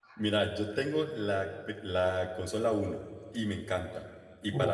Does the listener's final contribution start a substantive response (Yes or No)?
No